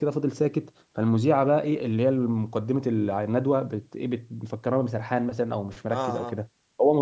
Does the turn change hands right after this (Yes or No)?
No